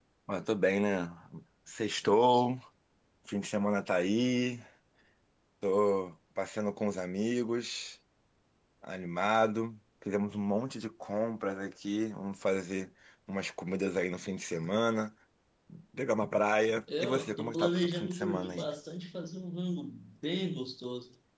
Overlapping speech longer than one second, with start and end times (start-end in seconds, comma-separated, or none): 17.0-18.7